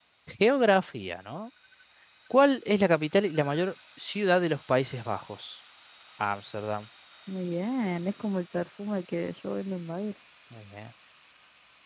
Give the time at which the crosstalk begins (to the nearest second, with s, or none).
none